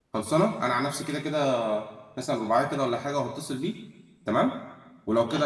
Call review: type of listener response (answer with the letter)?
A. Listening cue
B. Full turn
A